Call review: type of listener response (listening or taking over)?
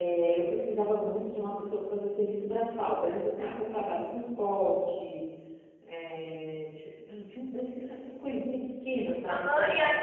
taking over